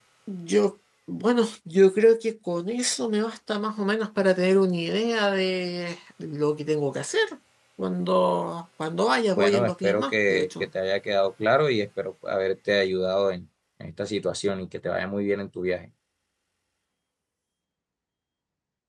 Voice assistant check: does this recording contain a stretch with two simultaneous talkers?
Yes, from 9.3 s

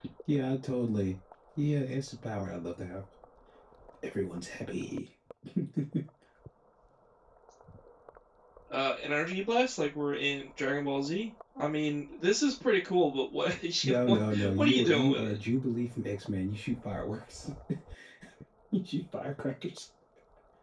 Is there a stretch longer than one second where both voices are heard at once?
Yes, from 13.8 s

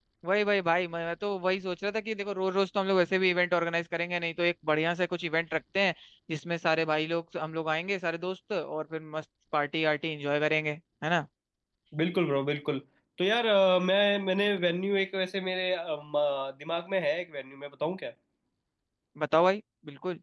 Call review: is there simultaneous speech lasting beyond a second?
No

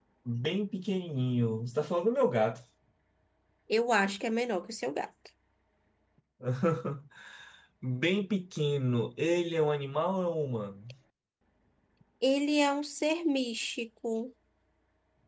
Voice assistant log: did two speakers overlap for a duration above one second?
No

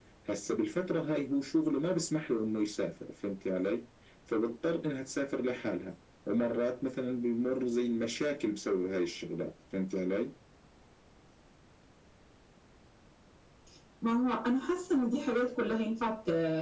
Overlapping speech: No

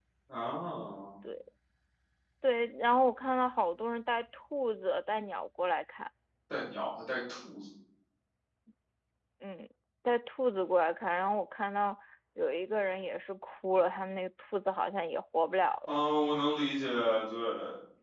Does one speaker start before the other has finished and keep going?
No

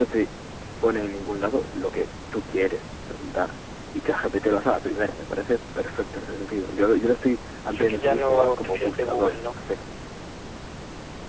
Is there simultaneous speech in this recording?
Yes, from 7.7 s

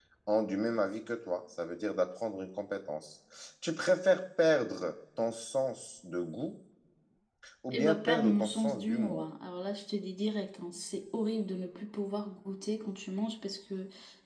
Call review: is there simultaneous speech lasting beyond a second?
Yes, from 7.7 s

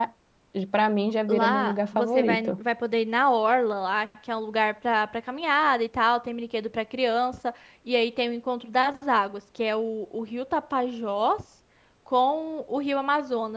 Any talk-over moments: Yes, from 1.3 s

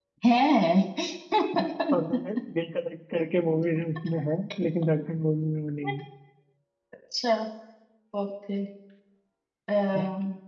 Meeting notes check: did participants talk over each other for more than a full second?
No

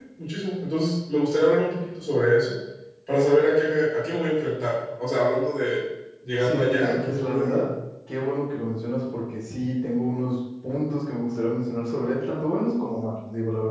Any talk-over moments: Yes, from 6.4 s

